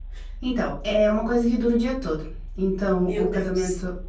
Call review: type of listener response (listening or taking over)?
listening